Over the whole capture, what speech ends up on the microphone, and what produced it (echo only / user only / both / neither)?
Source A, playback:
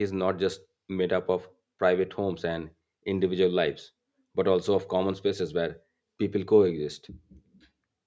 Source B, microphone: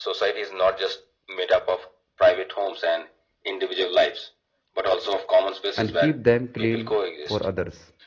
both